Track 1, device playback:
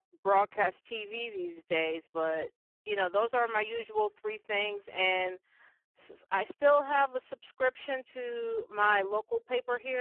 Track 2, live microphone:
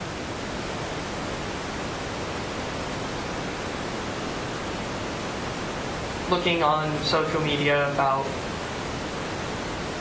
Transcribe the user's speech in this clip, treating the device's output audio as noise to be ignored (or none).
looking on social media about